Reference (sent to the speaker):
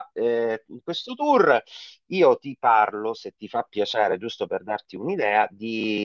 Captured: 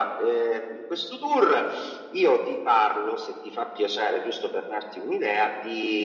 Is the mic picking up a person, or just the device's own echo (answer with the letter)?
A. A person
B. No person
B